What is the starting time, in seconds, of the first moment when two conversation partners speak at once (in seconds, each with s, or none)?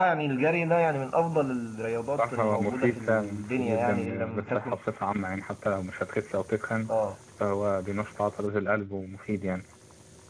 2.2 s